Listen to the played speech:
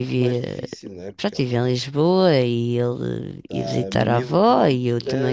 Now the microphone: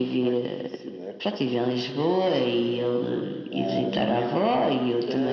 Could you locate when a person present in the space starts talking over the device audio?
none

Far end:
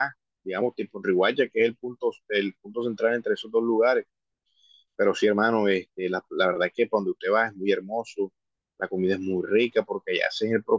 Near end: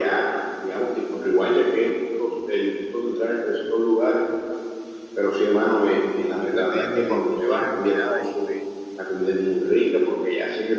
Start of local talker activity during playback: 6.3 s

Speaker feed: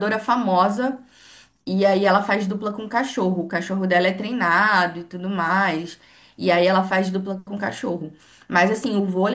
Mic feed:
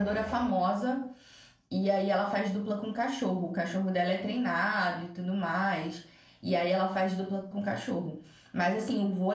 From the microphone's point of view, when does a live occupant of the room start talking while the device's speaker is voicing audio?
none

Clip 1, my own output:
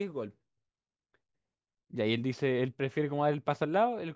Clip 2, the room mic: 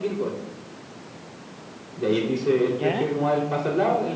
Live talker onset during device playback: 2.8 s

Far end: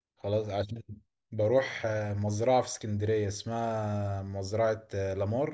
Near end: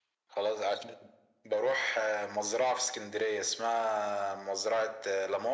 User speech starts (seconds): none

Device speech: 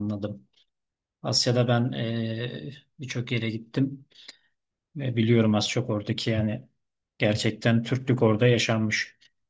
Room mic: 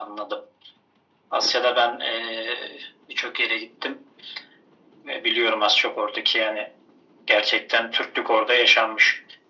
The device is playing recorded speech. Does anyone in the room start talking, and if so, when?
none

